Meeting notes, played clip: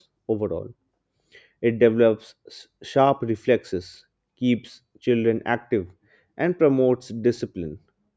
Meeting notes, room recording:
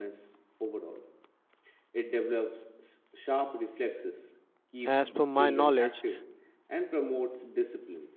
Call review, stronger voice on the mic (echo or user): user